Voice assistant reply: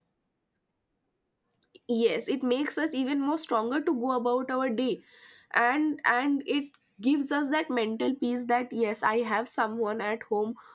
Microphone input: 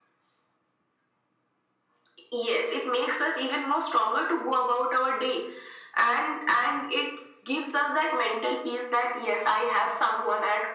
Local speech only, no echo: none

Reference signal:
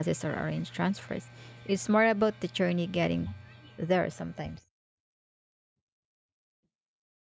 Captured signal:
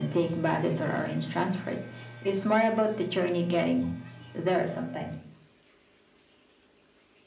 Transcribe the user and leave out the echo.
none

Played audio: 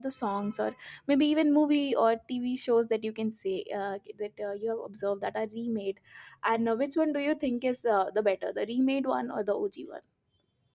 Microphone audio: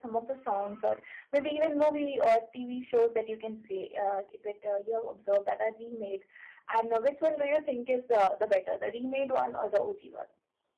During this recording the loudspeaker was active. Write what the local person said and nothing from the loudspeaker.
none

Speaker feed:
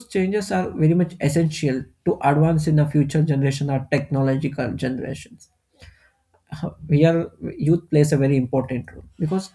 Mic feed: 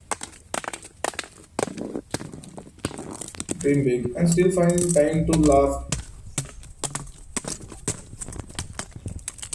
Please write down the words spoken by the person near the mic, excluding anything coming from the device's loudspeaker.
dream big, and still find time to laugh

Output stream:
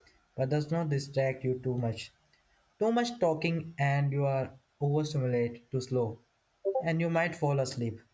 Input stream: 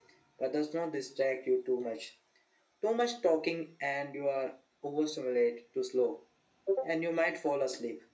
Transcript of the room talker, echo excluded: none

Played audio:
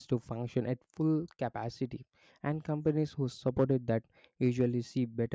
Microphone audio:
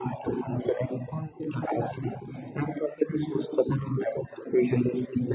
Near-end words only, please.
none

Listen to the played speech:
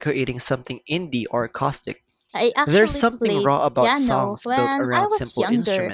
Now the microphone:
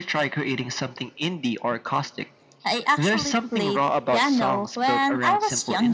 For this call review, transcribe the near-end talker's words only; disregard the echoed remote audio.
none

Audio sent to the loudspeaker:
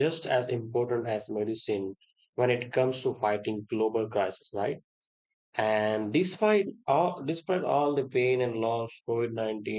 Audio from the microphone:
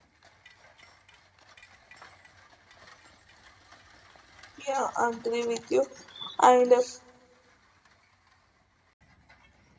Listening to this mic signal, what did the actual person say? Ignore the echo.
yeah i agree with you and uh,

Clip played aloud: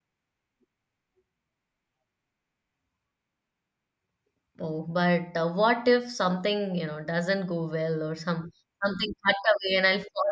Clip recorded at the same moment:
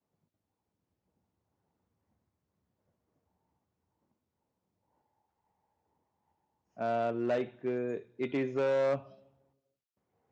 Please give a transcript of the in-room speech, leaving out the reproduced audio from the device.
Uh, like uh, it is a

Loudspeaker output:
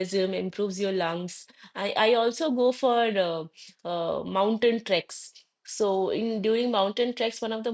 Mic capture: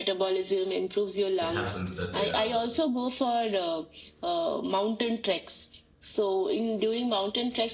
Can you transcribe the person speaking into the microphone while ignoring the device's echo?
it happens that uh, the

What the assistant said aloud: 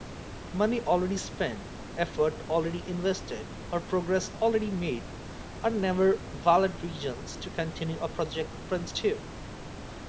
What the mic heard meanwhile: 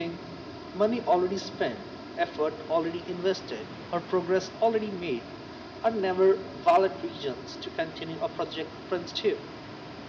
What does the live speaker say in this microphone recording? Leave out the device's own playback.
none

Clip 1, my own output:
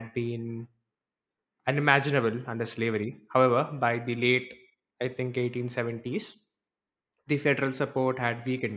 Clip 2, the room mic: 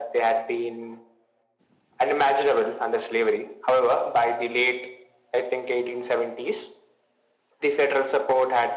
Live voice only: none

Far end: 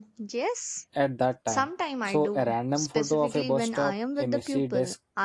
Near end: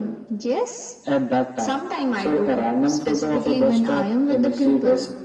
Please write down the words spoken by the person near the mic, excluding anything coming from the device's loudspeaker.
none

